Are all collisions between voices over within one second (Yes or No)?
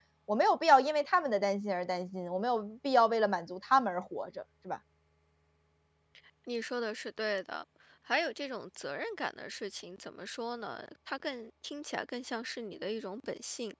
Yes